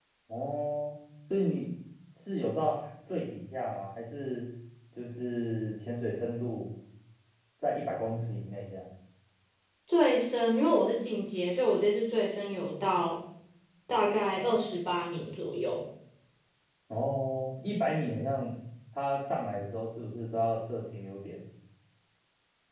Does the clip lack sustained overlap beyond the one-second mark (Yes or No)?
Yes